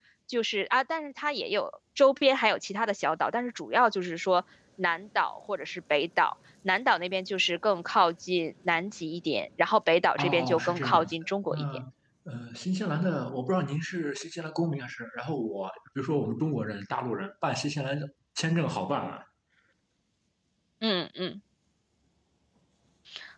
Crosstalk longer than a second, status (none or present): present